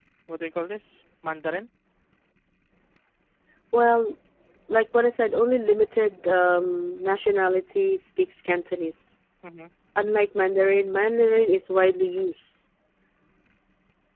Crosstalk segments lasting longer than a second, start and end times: none

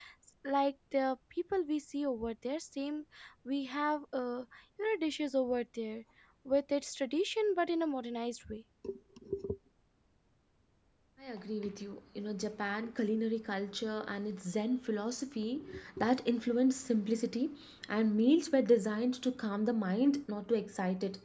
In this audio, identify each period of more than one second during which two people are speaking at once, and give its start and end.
none

